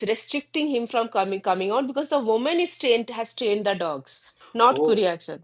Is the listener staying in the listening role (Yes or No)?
No